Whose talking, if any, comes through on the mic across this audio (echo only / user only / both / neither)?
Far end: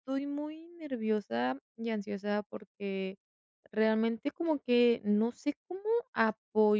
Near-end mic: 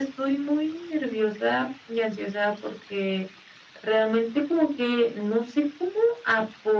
echo only